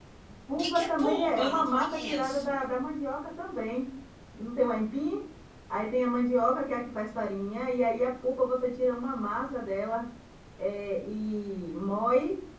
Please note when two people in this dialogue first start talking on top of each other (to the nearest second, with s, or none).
1 s